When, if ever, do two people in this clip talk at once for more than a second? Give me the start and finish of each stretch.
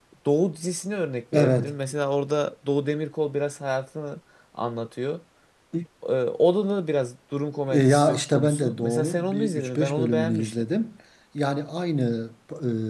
7.7-10.6

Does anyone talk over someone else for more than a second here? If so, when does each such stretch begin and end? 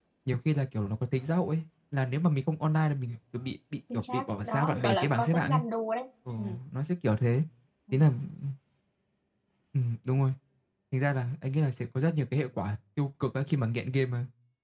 3.9-5.6

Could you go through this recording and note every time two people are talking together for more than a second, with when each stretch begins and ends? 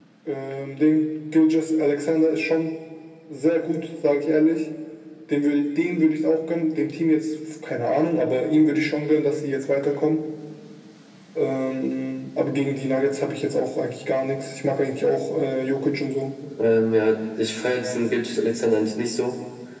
none

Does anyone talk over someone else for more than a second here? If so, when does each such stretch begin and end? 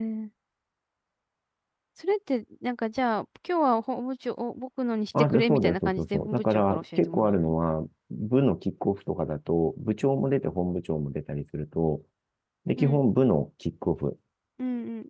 5.2-7.5

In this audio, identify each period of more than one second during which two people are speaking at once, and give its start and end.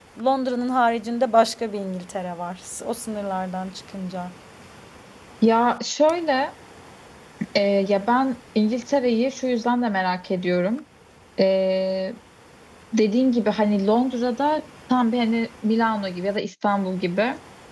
none

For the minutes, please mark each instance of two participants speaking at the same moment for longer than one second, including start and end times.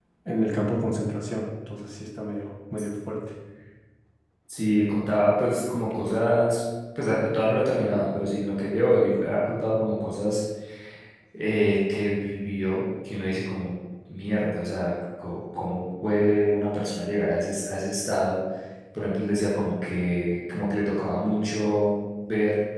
none

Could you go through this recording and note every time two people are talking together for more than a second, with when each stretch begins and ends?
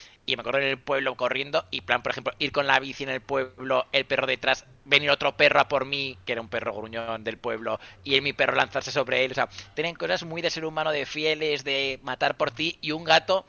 none

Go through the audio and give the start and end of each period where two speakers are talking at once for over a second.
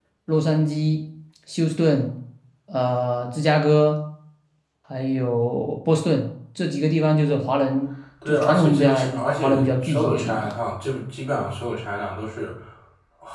8.3-10.5

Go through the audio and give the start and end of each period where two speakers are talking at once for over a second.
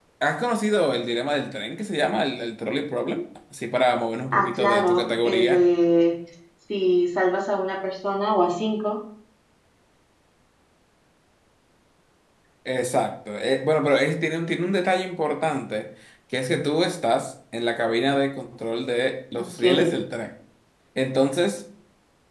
4.3-5.7

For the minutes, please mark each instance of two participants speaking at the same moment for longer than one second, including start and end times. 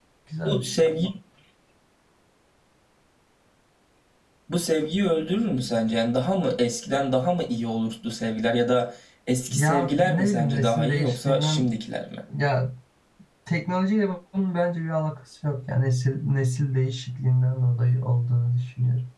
9.5-11.7

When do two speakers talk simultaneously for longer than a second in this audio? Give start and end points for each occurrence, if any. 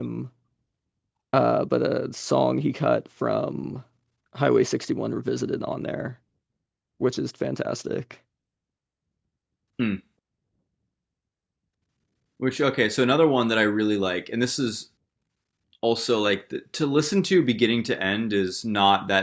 none

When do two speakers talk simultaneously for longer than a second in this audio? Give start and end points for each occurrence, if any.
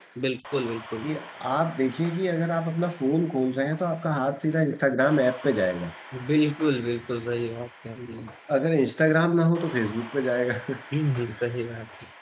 none

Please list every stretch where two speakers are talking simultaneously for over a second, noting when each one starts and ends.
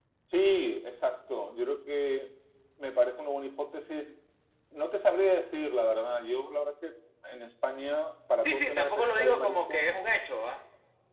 8.4-9.8

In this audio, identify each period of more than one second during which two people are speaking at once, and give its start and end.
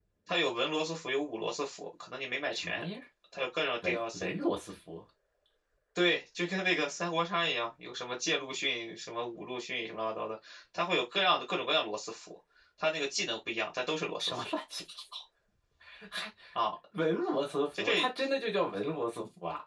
none

